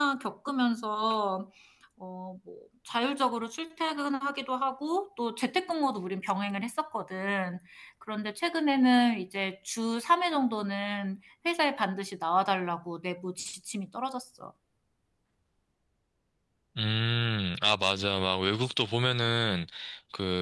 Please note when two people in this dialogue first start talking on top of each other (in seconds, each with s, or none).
none